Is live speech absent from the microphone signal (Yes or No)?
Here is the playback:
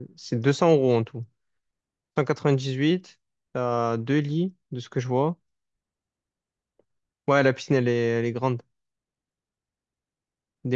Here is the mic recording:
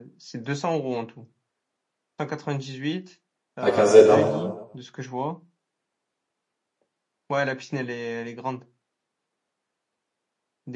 No